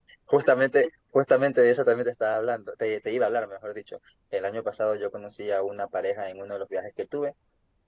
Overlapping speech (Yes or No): No